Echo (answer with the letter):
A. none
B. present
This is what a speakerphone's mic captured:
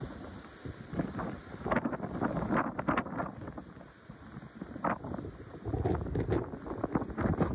A